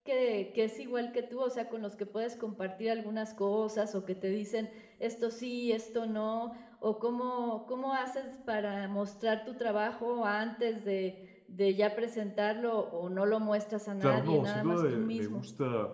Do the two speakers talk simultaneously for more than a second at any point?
Yes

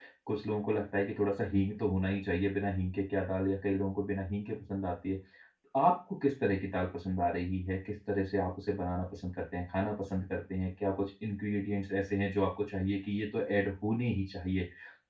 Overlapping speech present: No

